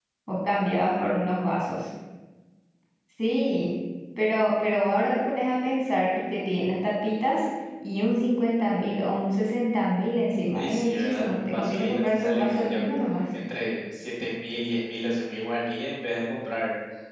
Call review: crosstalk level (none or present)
present